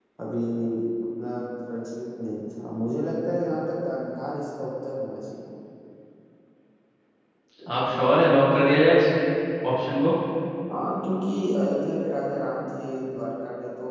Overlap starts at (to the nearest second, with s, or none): none